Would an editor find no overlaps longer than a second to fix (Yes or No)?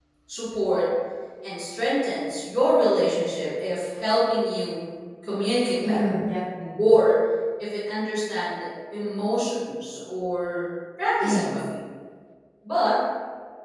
Yes